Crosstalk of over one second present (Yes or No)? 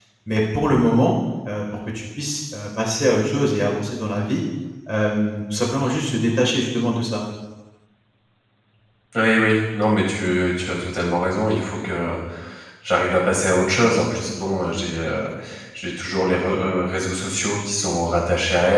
No